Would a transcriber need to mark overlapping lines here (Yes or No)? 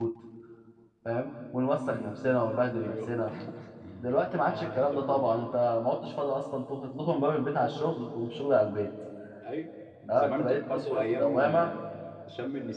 Yes